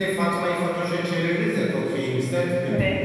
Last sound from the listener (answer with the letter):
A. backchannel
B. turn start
A